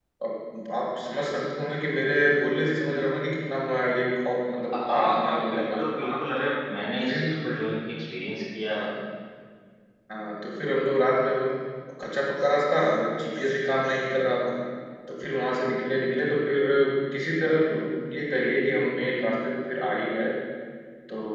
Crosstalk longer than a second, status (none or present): present